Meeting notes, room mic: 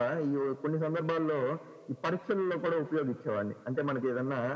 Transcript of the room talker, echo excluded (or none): none